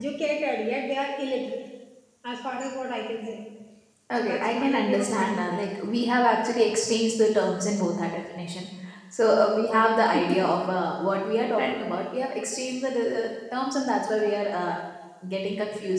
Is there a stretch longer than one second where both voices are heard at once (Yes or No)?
Yes